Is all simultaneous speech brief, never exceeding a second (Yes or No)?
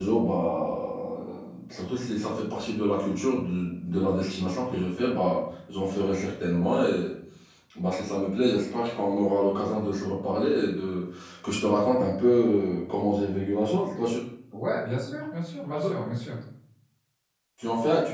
Yes